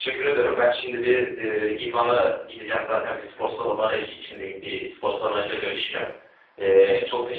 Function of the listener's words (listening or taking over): listening